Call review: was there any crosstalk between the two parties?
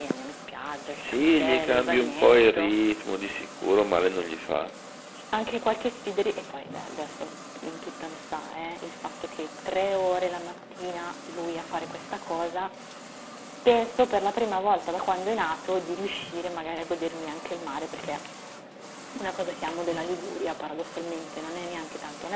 Yes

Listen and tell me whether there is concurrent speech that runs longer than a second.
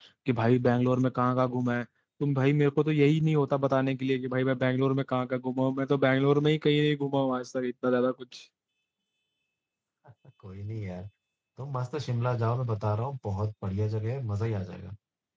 No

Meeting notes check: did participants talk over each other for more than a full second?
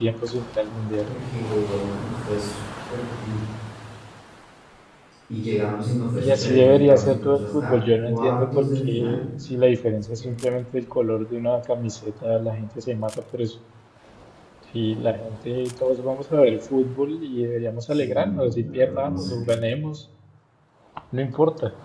Yes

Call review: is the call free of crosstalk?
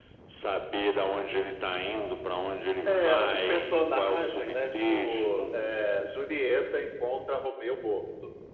No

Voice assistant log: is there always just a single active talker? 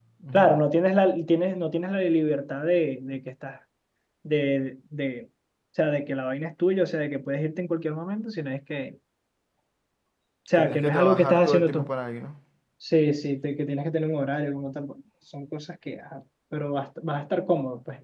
No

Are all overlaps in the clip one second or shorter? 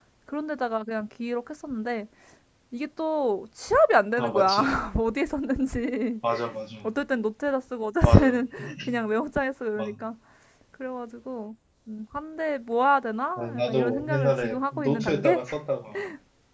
No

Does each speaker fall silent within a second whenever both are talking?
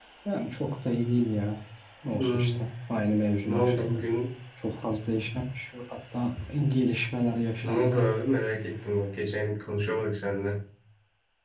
Yes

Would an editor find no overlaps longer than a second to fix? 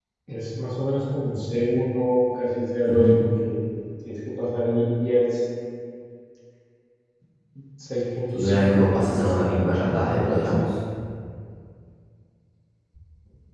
No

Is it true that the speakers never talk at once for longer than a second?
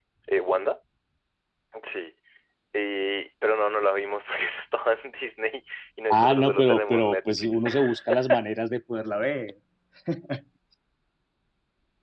No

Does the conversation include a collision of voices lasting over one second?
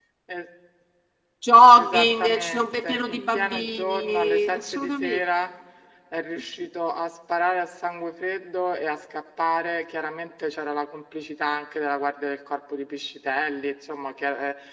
Yes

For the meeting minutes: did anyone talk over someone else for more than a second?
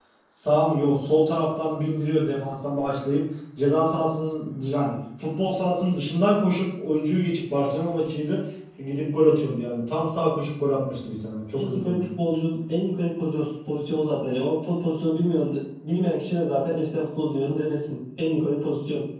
No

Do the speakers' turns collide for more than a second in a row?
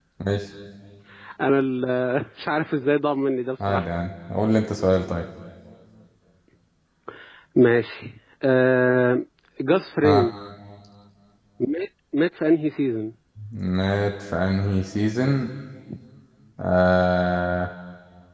No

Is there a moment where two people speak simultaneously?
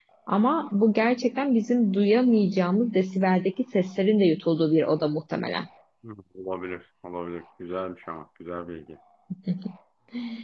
No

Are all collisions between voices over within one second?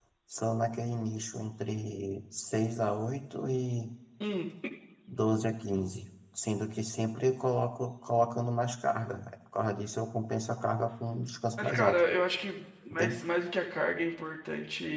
Yes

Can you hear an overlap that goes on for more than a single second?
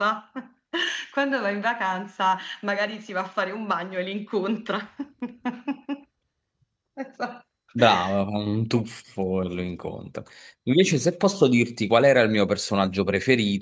No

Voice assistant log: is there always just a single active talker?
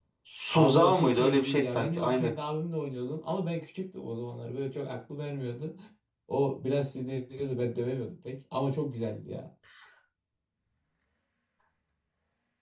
No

